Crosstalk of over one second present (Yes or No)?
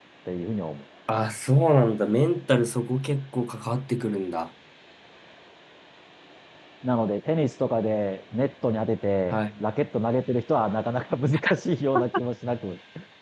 No